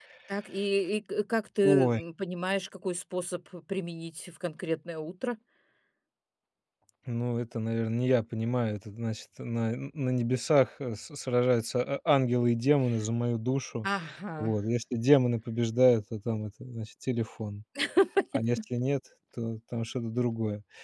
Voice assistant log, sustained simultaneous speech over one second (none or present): none